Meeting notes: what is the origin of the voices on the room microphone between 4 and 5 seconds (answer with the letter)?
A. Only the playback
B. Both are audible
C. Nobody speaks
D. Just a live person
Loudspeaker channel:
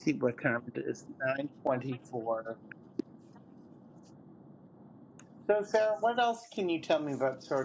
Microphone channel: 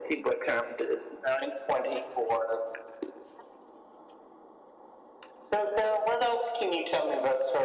C